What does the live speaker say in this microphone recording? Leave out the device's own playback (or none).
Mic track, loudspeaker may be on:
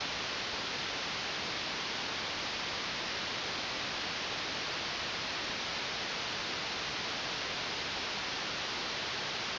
none